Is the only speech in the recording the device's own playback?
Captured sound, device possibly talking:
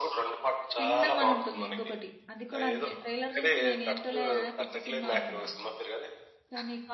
No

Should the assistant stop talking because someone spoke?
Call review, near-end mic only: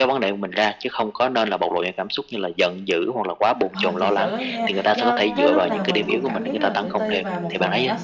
Yes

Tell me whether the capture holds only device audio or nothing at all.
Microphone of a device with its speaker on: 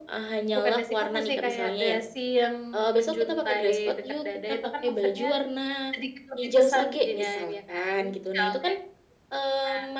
Yes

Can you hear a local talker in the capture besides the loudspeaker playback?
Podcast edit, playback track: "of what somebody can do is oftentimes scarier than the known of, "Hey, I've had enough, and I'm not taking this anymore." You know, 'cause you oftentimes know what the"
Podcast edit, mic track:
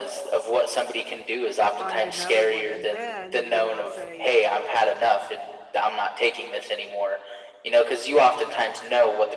Yes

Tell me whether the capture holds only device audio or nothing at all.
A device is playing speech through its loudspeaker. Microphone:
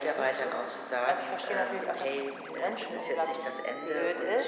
Yes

